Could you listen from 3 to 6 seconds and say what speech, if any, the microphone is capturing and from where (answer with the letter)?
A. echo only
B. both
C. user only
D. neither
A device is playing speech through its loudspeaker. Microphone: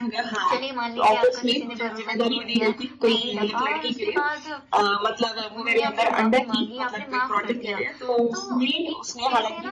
B